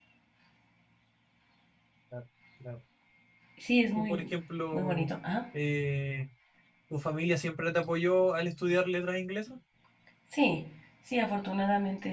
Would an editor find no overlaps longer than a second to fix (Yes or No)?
Yes